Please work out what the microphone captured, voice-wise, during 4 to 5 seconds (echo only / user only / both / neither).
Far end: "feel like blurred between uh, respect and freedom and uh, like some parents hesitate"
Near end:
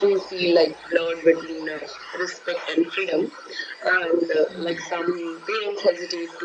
both